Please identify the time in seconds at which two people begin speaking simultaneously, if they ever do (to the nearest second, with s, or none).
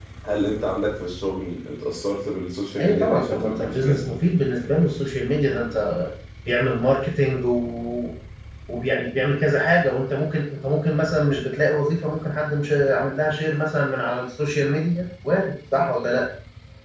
3 s